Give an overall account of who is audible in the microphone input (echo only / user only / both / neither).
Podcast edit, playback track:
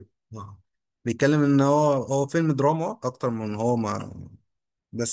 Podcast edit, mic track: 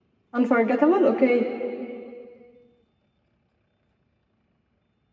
user only